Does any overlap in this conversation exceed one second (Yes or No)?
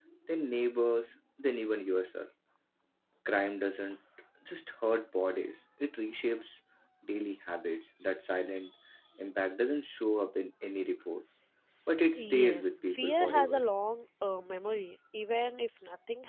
Yes